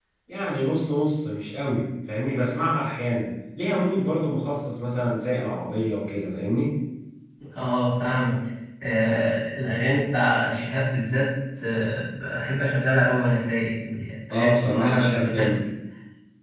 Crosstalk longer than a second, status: present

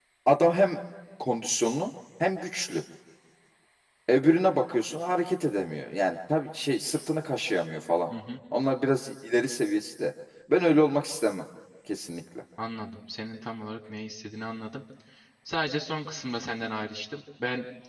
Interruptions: none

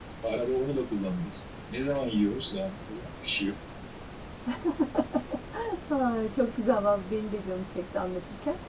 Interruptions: none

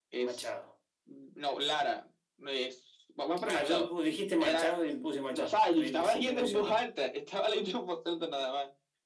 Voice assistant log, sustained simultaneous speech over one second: present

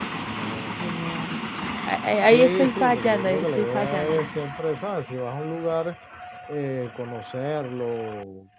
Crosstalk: present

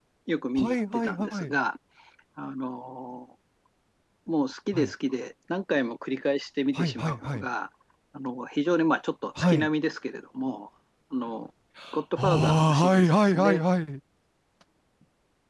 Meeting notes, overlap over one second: present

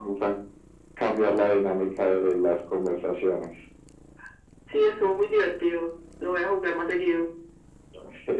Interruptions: none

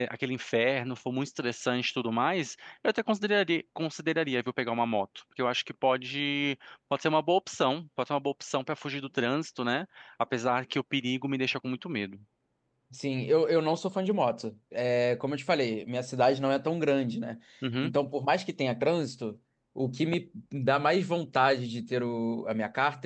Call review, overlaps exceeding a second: none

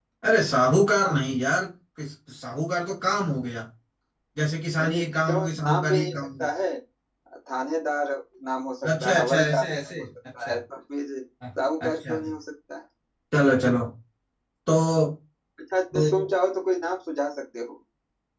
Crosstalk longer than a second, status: present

